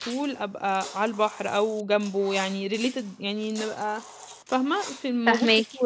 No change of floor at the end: No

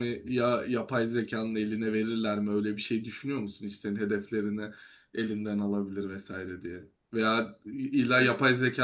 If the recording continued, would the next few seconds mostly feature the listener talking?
No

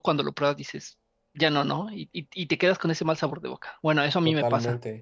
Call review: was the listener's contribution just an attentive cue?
No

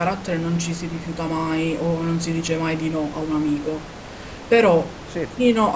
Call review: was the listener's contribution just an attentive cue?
Yes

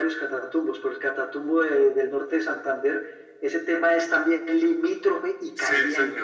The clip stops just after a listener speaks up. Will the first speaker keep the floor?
No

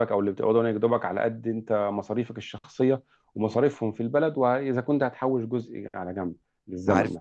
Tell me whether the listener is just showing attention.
No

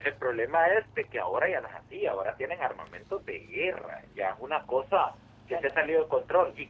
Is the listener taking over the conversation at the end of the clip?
No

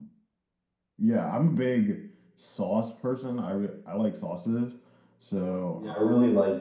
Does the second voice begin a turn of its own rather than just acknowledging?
Yes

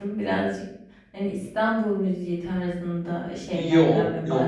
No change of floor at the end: No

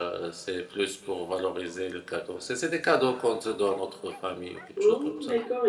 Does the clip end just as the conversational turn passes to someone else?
Yes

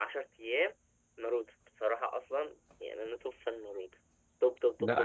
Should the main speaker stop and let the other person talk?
Yes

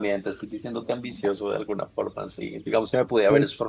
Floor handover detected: No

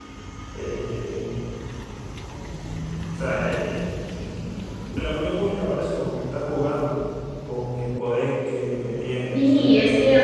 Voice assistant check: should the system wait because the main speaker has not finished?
No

